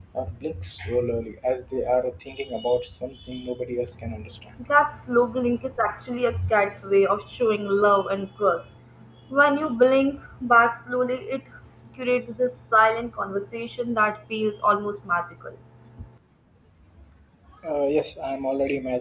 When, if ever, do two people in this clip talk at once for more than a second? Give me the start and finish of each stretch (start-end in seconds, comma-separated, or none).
none